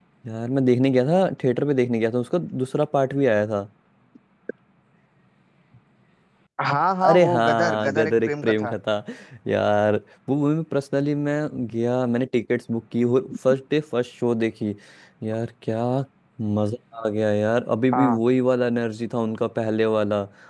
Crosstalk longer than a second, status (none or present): present